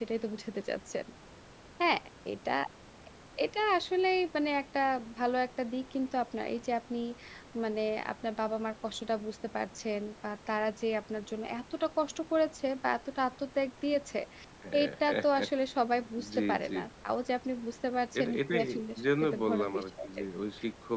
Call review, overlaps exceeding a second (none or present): present